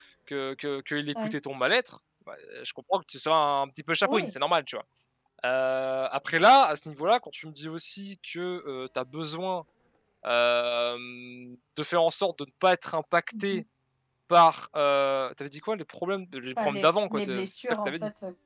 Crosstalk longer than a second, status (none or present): present